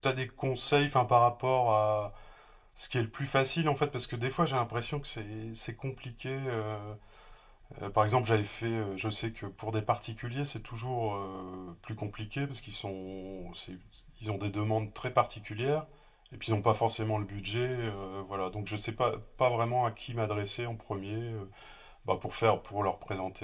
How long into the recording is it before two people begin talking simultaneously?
none

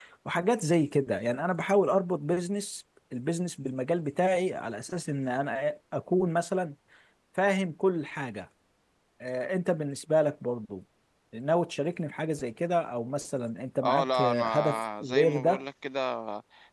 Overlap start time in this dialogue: 13.8 s

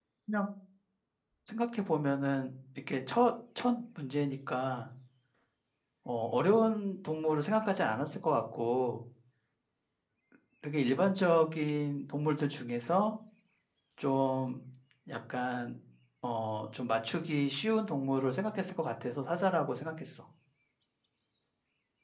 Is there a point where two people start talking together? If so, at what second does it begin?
none

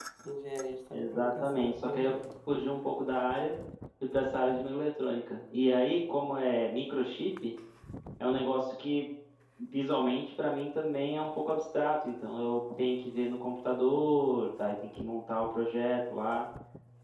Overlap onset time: 0.9 s

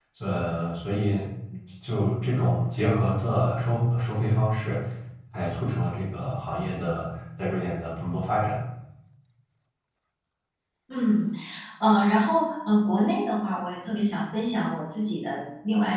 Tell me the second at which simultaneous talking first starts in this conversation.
none

